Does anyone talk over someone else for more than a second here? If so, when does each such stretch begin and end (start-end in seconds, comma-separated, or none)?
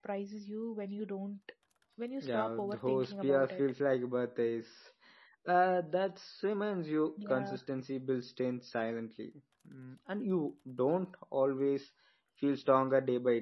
2.2-3.6